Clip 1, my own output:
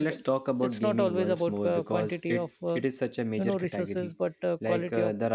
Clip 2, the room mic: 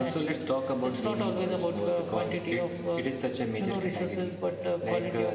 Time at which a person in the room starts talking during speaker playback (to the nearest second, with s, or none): none